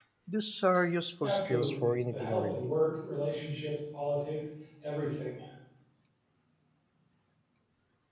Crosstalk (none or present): present